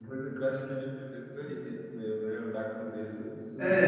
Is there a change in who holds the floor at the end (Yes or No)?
Yes